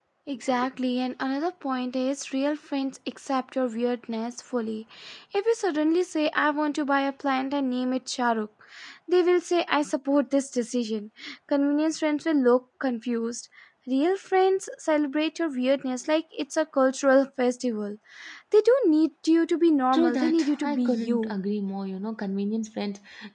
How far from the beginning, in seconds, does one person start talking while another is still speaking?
19.9 s

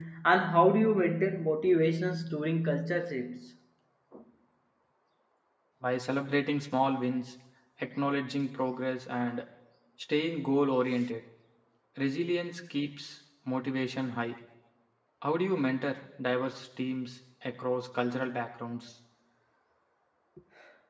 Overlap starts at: none

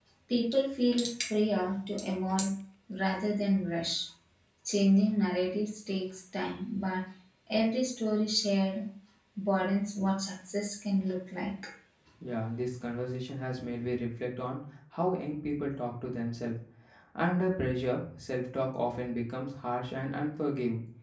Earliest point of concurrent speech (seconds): none

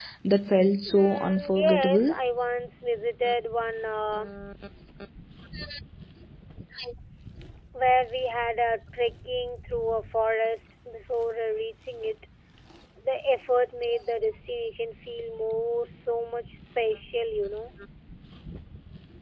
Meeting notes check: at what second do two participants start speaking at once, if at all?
0.9 s

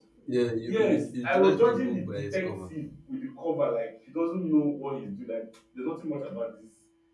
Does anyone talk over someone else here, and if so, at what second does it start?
0.7 s

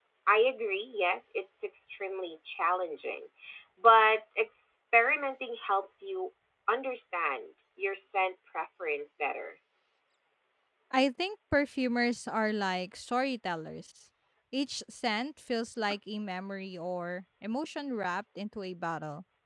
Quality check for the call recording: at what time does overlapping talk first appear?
none

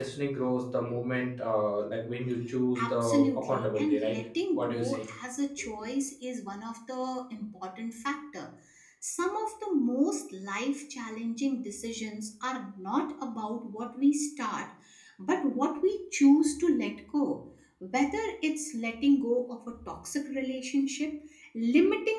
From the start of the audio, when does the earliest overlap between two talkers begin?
2.8 s

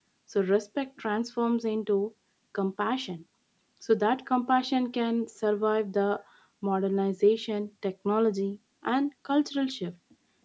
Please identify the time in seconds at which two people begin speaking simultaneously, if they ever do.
none

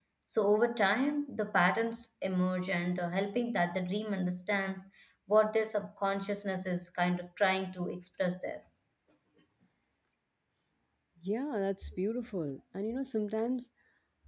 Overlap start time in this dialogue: none

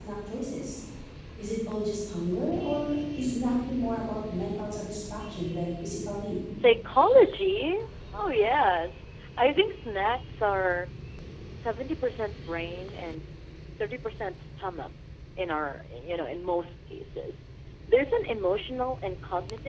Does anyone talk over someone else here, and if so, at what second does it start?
none

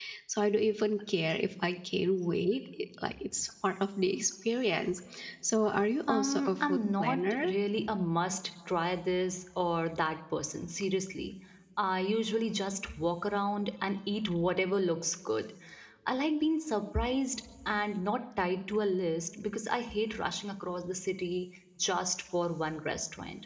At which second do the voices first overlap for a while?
6.1 s

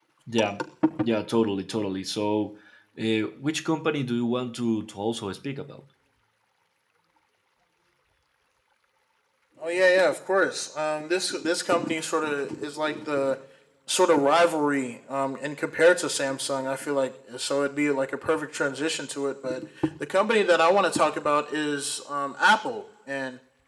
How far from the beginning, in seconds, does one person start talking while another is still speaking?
none

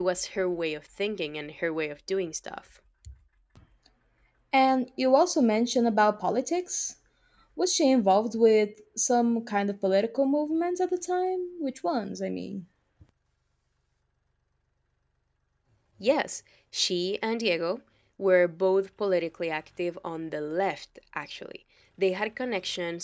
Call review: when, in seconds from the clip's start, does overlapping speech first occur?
none

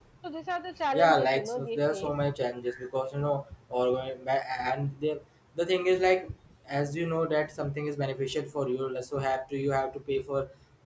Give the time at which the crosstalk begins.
0.9 s

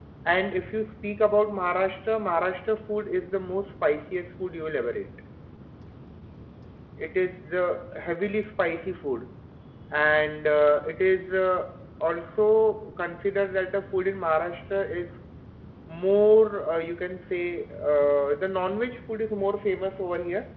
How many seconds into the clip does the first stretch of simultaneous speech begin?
none

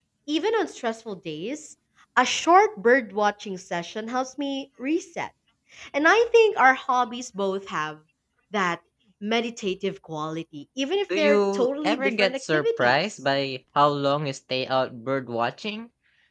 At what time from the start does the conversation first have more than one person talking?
11.1 s

